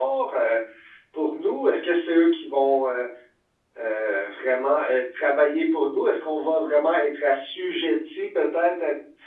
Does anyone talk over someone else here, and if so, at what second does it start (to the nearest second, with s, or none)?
none